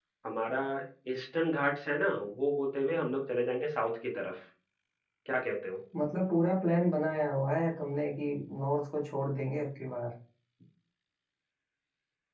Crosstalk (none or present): none